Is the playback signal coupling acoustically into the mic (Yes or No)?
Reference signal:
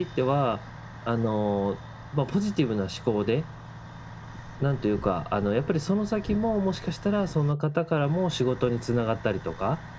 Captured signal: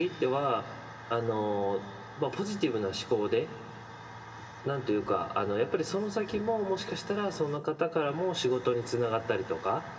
Yes